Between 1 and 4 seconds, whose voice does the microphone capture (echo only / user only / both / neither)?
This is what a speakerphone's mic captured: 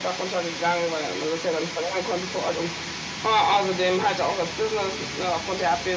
echo only